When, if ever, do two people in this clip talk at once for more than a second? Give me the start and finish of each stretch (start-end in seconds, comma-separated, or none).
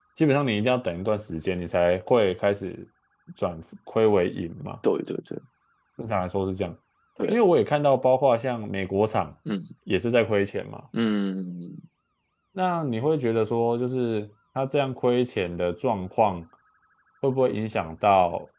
none